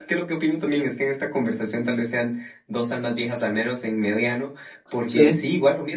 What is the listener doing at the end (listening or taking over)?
listening